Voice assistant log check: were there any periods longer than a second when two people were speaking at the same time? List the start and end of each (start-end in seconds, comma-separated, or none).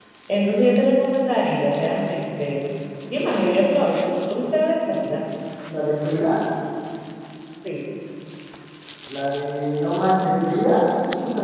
none